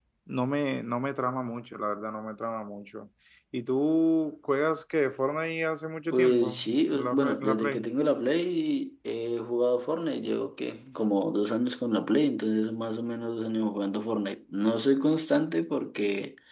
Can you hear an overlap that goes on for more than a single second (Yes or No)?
Yes